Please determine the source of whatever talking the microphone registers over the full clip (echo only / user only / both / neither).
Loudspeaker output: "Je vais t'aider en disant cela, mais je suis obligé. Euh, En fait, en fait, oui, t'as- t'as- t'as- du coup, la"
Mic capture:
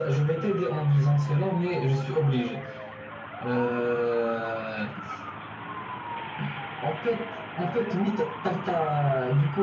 echo only